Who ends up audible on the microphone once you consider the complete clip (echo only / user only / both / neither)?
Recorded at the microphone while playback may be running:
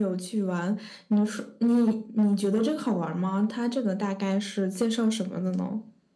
echo only